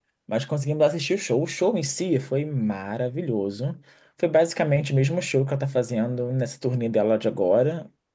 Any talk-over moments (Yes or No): No